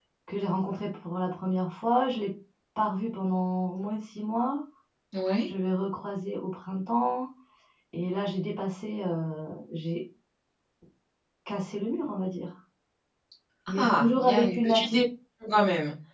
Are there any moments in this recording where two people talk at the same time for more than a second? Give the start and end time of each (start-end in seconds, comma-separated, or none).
13.8-15.0